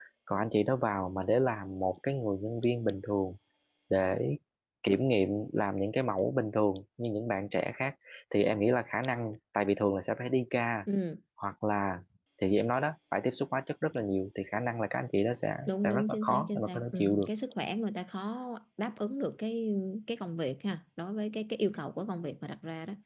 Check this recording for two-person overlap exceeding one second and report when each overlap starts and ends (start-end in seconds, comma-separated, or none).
15.7-17.3